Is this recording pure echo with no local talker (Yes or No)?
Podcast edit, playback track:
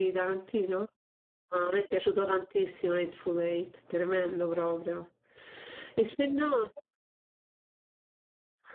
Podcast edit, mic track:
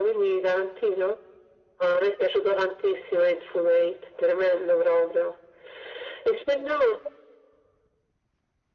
Yes